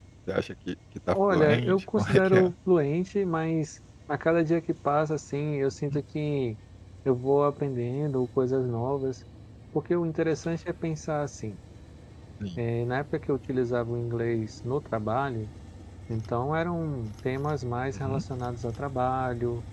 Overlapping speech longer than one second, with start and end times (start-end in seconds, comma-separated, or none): 1.1-2.5